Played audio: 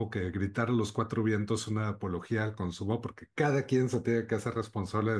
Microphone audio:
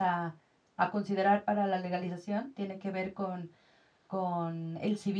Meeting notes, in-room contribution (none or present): present